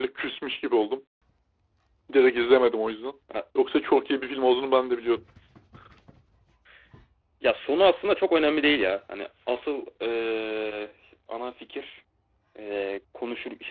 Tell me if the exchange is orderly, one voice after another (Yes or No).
Yes